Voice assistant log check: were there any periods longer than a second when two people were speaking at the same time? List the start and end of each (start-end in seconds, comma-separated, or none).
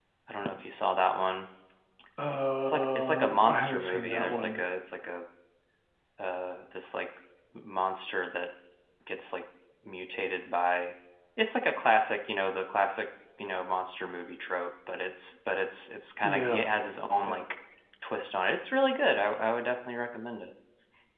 2.7-4.6